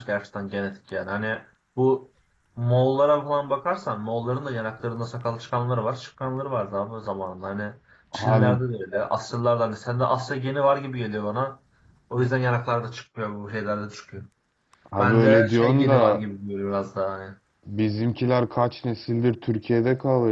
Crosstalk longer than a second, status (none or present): present